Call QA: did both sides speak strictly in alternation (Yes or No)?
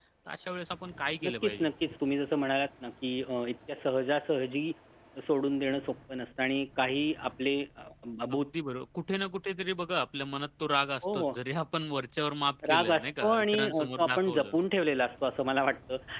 No